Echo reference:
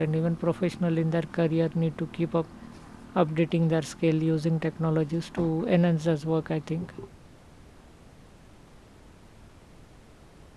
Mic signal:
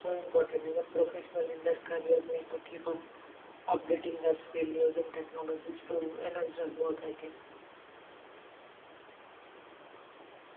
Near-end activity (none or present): none